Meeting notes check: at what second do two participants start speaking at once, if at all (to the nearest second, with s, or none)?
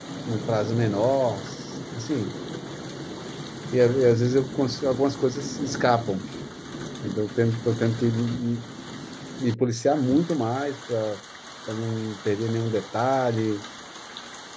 none